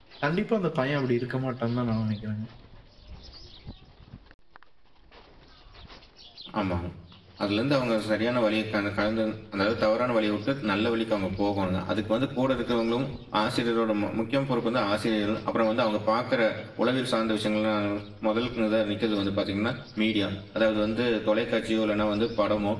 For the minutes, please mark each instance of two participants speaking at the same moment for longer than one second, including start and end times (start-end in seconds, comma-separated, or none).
none